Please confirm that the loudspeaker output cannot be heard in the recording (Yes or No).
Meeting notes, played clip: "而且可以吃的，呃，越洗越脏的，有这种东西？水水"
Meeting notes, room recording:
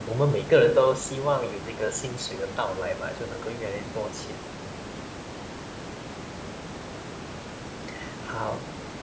Yes